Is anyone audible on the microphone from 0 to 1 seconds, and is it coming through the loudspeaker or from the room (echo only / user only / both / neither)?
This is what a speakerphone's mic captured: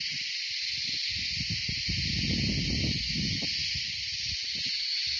neither